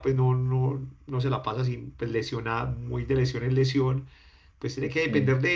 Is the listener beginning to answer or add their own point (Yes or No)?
No